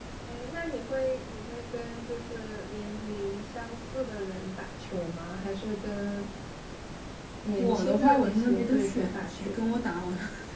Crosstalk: present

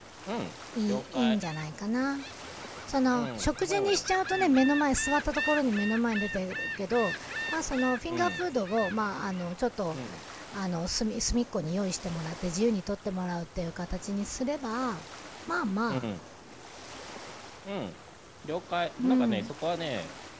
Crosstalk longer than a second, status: present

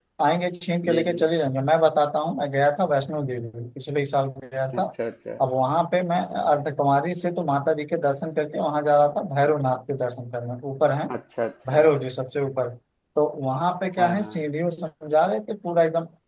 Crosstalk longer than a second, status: none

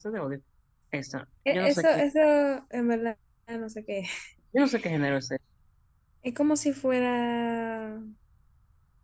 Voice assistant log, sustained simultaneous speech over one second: none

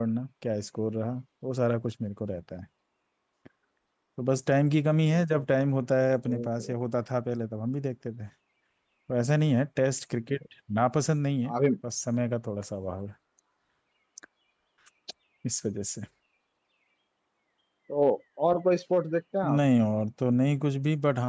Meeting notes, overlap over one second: none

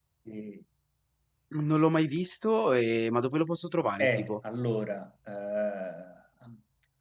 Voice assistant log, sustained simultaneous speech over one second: none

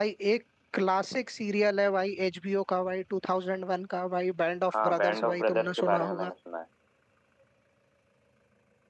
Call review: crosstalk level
present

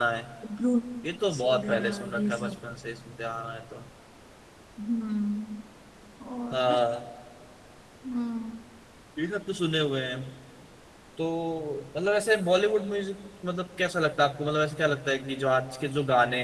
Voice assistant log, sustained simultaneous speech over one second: present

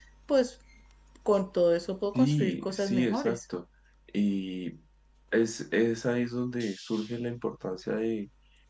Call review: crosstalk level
present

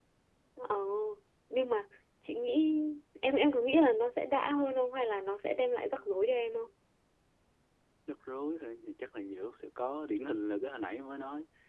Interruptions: none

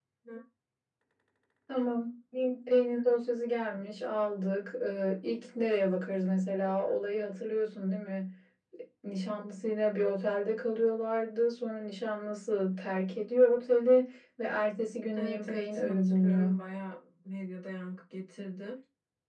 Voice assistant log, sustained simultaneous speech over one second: present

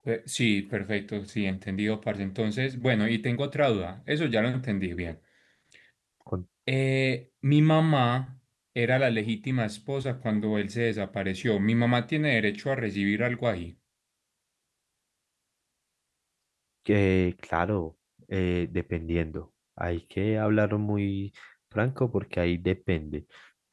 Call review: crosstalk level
none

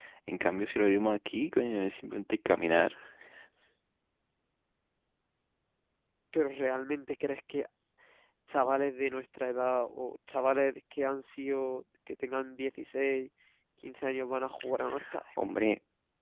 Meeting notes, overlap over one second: none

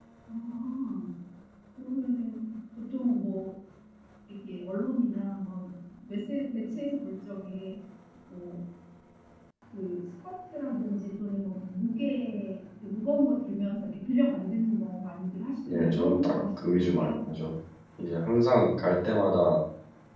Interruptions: present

